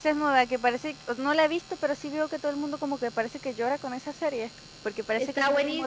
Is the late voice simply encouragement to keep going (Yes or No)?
No